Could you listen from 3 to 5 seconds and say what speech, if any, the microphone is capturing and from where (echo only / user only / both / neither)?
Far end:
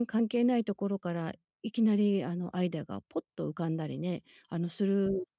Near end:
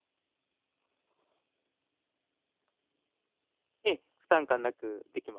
user only